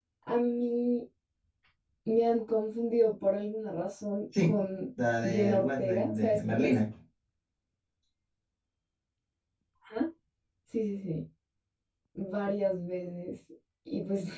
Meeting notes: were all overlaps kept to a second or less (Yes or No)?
No